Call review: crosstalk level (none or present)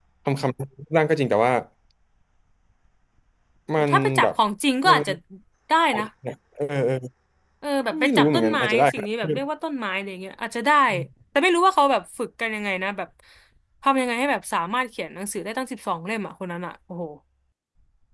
present